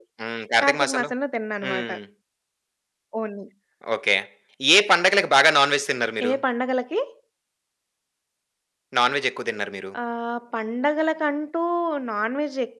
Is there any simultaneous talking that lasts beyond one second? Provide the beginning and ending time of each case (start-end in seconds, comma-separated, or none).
none